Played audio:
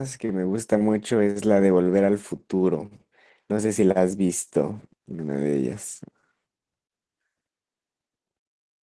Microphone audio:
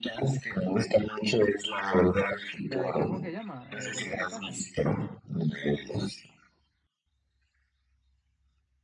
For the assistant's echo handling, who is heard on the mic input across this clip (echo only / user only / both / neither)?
both